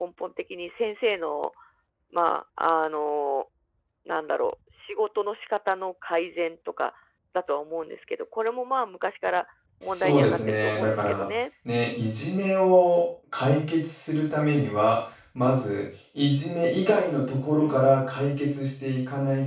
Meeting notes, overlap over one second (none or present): present